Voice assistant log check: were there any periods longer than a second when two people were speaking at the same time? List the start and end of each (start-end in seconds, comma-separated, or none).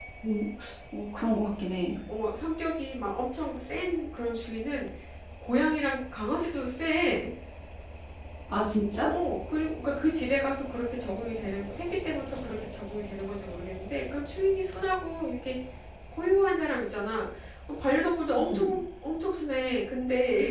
none